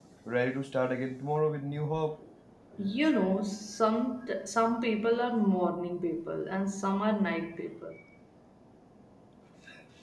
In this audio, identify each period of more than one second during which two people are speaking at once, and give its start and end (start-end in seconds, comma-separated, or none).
none